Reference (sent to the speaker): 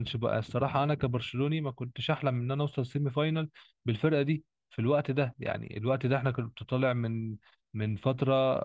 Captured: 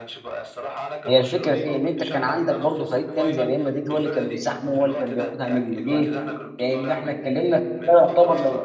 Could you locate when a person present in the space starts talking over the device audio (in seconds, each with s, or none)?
1.1 s